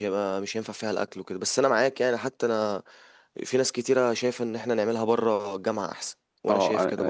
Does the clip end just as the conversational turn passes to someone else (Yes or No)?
Yes